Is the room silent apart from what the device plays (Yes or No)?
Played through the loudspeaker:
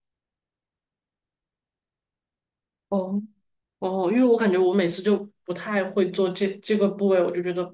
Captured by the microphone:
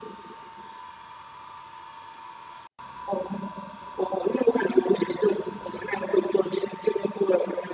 Yes